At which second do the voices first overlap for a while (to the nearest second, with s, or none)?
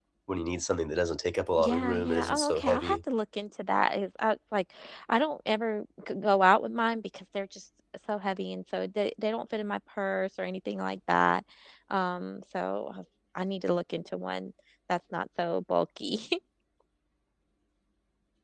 2 s